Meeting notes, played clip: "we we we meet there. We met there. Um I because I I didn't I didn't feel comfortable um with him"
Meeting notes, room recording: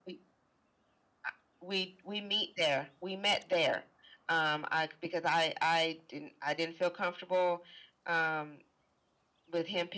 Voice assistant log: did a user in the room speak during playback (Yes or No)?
No